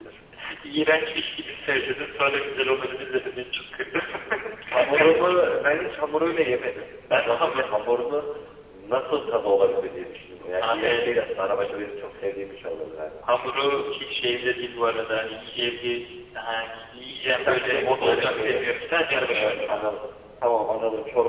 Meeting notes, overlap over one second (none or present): present